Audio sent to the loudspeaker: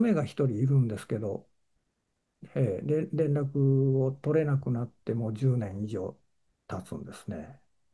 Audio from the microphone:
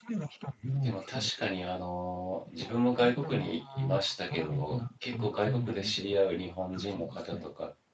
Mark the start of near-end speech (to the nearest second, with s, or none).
1 s